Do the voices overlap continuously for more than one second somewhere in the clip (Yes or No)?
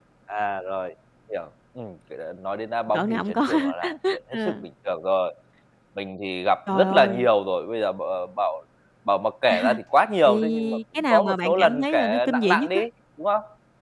Yes